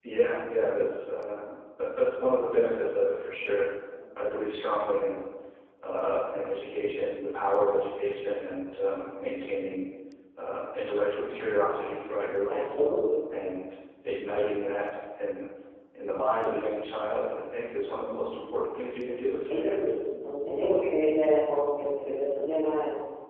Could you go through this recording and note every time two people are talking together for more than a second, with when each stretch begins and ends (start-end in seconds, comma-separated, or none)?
none